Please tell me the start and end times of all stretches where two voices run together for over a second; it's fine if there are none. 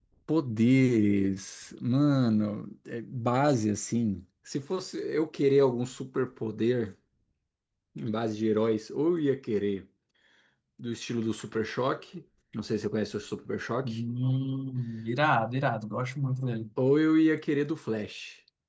none

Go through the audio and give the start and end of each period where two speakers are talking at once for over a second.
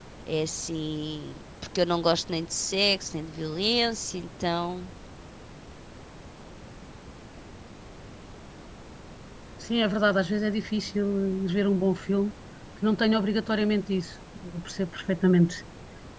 none

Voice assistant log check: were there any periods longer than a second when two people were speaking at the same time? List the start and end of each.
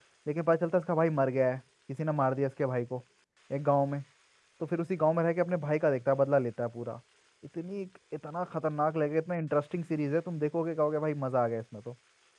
none

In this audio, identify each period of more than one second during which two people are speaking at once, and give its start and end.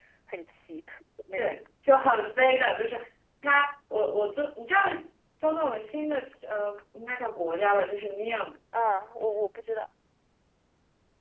none

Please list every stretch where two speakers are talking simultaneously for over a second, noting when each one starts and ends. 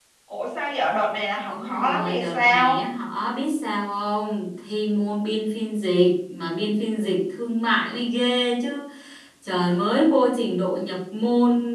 1.5-2.8

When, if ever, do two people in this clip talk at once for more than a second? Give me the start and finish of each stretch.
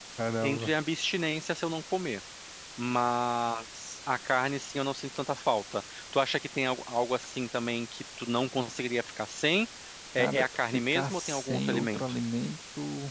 10.2-12.0

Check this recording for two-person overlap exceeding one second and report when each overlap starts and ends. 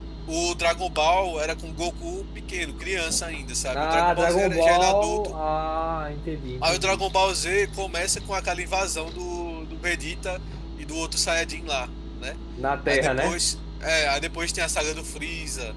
3.7-5.3

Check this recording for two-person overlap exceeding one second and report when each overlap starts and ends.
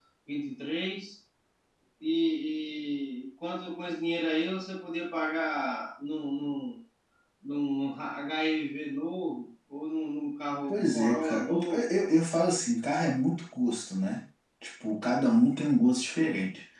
10.7-11.9

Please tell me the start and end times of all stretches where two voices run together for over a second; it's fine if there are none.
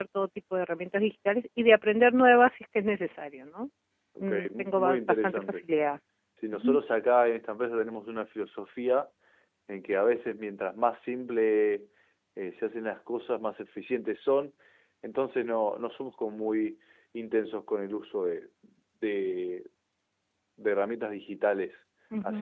4.2-5.6

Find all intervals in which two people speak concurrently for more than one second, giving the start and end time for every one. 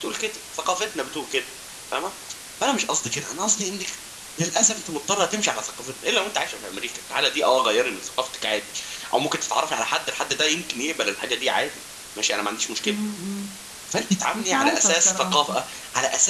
14.3-15.6

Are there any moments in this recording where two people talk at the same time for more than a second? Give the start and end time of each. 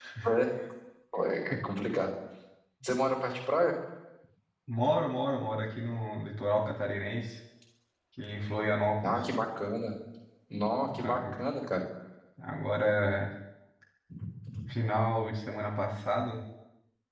none

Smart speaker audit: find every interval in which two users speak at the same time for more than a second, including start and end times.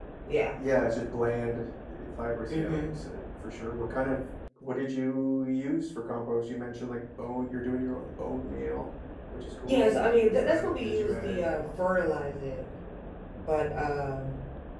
9.6-11.6

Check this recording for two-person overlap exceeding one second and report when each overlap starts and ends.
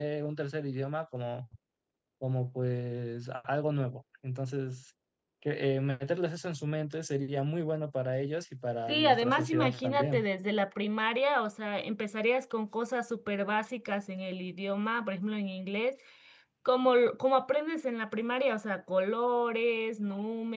8.9-10.2

